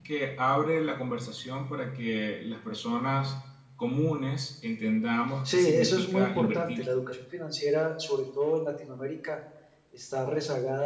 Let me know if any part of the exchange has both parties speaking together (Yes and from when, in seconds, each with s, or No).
Yes, from 5.4 s